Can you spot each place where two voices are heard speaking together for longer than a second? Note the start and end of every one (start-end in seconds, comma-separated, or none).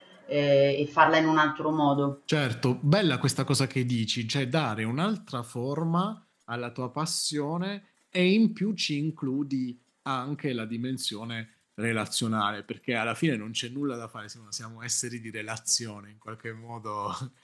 none